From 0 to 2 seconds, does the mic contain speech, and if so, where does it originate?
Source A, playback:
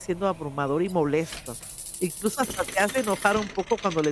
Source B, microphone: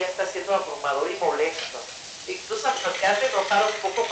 echo only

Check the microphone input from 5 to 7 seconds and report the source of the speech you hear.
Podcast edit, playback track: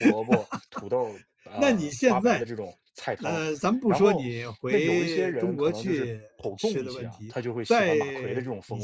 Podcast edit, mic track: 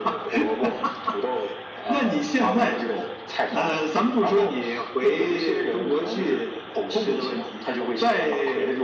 echo only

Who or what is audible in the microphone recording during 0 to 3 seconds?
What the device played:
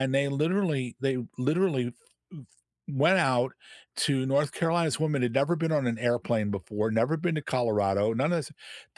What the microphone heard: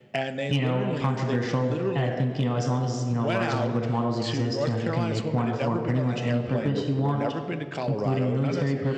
both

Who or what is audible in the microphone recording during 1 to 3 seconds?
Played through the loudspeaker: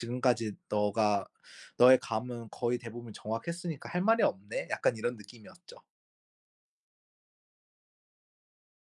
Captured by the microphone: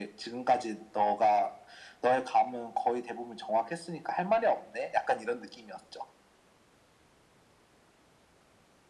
echo only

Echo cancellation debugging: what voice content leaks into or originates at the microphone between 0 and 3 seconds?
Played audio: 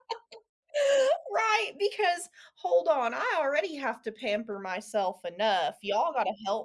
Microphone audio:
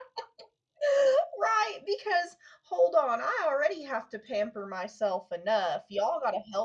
echo only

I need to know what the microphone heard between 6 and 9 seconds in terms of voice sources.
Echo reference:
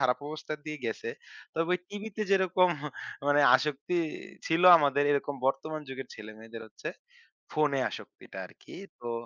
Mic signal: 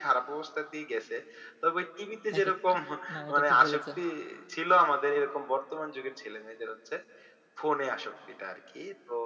echo only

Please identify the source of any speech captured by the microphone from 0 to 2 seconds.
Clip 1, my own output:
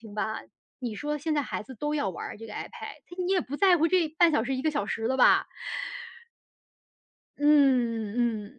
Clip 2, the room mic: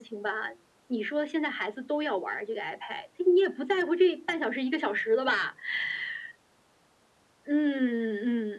echo only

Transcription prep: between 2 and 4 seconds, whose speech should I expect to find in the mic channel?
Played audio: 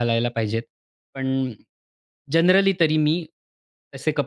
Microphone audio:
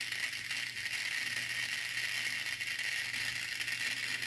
neither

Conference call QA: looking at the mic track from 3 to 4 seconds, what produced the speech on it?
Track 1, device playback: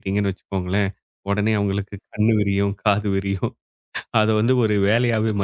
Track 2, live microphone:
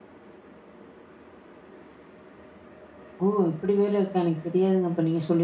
user only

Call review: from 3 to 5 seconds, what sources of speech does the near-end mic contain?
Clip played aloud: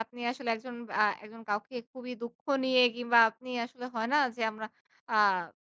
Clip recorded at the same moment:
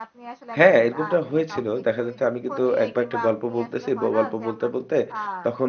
both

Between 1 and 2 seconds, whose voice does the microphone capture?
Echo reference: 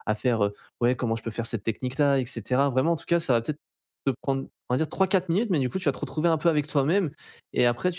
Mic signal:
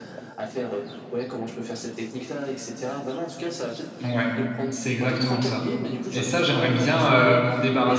echo only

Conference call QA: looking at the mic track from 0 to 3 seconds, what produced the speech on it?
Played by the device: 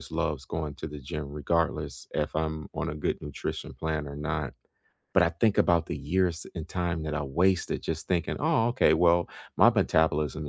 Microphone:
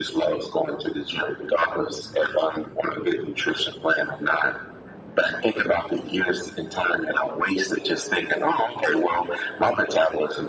echo only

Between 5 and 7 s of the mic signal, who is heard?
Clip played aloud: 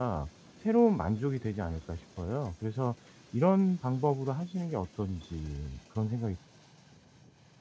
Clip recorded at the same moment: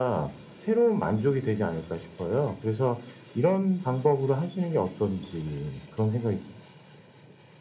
echo only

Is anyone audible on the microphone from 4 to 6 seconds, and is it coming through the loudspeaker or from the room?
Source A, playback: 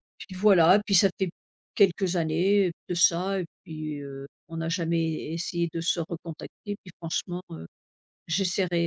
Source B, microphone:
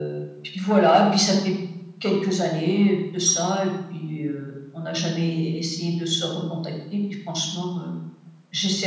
echo only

